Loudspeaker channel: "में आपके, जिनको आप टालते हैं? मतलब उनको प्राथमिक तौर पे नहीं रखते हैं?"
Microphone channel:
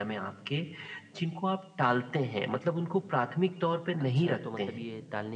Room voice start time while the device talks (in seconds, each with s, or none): 4.0 s